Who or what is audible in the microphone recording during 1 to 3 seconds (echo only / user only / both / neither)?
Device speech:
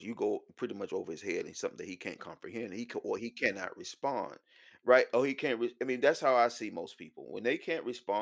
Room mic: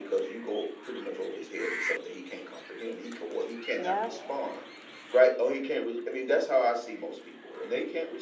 echo only